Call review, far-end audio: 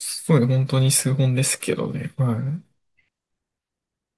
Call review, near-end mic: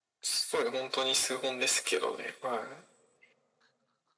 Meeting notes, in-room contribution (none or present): none